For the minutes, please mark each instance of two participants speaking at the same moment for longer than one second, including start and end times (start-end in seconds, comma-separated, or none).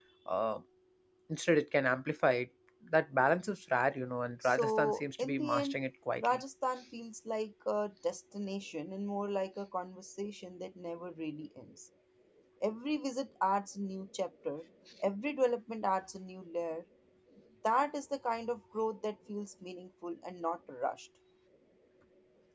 4.4-5.8